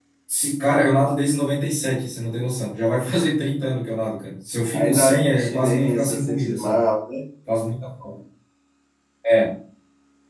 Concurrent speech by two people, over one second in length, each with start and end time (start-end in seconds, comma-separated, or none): 4.7-6.8